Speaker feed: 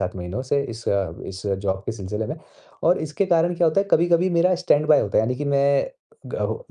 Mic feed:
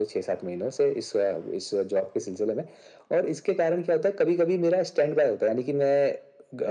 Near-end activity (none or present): none